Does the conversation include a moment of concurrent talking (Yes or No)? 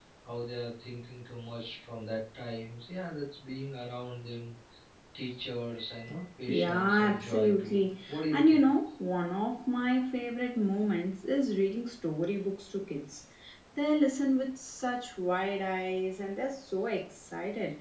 Yes